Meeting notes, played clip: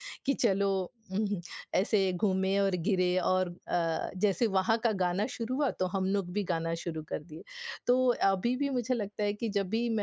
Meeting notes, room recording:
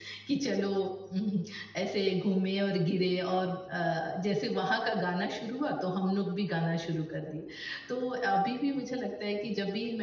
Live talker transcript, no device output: none

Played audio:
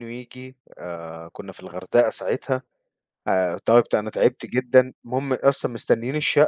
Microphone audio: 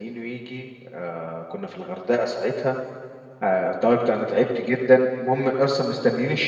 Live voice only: none

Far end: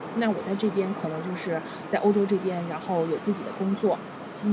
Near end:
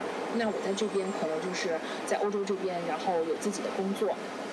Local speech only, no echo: none

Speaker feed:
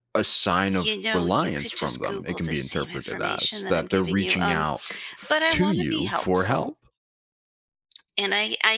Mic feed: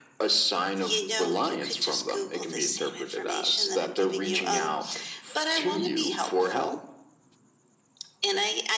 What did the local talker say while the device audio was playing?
none

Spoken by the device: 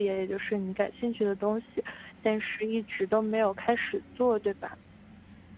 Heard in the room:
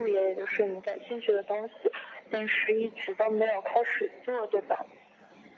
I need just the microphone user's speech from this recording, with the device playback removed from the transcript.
none

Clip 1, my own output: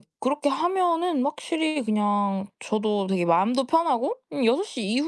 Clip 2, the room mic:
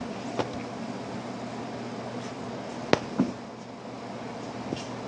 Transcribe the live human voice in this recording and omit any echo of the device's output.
none

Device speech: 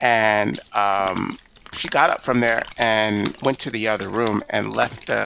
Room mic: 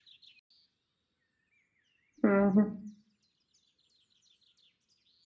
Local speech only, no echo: Mhm.

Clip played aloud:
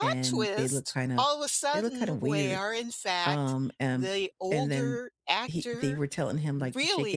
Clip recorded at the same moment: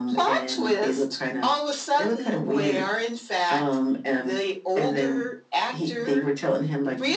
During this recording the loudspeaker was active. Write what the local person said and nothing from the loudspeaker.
none

